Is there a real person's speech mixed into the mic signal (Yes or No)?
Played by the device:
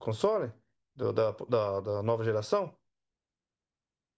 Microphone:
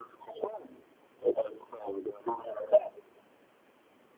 No